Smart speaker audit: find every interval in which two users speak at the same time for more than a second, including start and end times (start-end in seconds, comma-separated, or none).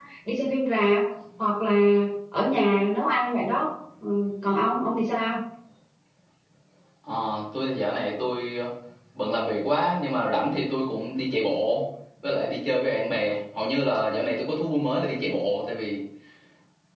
none